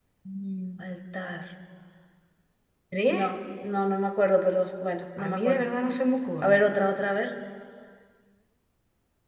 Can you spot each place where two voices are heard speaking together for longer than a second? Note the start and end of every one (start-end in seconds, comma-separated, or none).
none